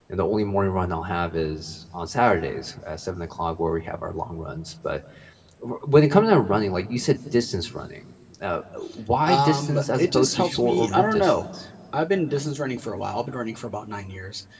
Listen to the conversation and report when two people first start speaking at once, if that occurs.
9.3 s

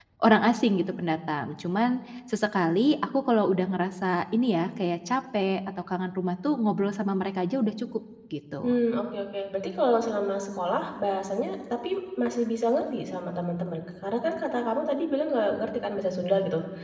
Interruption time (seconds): none

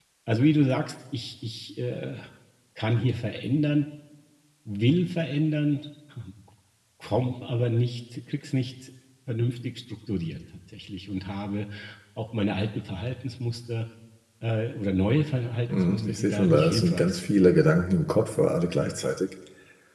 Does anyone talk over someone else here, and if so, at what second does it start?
15.7 s

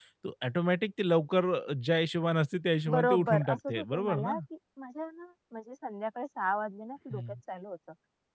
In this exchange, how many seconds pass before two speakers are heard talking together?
2.9 s

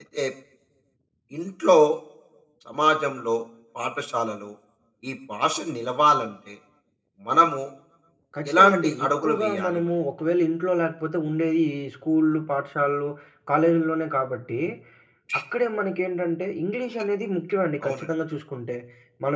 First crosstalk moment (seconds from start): 8.5 s

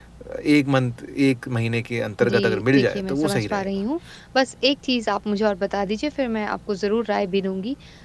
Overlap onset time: 2.2 s

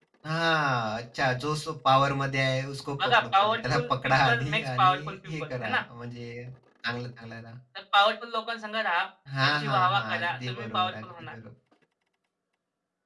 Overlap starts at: 3.0 s

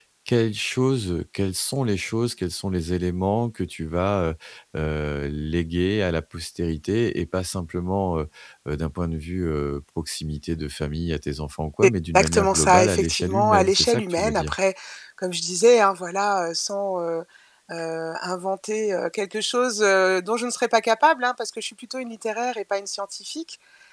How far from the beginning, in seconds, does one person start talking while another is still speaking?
11.8 s

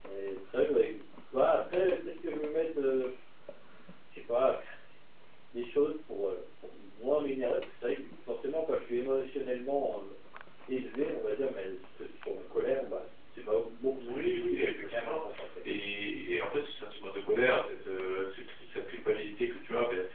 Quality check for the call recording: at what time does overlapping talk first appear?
14.0 s

